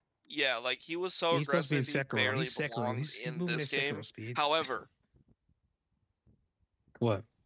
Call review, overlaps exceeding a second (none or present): present